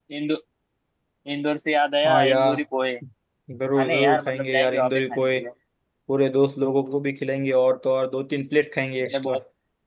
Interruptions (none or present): present